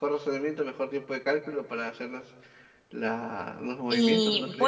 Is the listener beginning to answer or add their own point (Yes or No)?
Yes